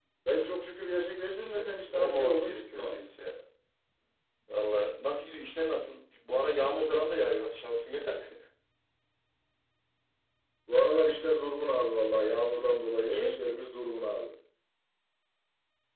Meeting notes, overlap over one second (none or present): present